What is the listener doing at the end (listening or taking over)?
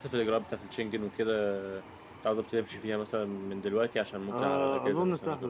taking over